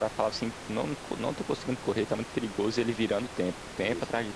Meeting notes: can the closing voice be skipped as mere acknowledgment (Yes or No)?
No